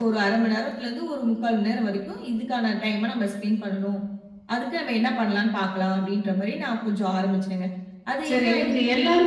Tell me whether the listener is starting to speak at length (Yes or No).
Yes